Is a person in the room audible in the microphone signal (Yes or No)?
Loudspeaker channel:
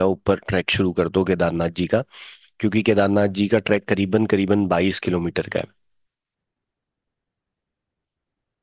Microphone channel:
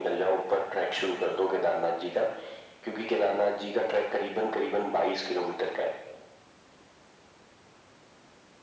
No